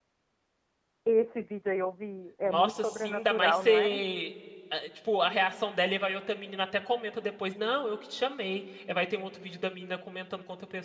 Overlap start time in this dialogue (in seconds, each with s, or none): 2.5 s